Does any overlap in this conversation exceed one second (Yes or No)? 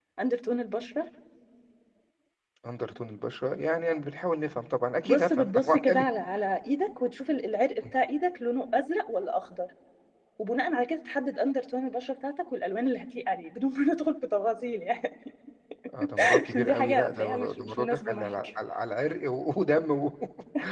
Yes